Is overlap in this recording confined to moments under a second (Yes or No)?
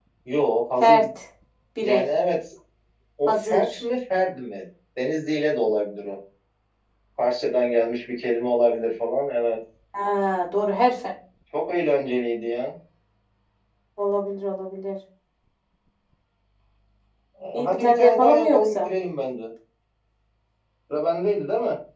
No